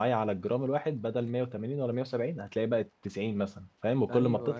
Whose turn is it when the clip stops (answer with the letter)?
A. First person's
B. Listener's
B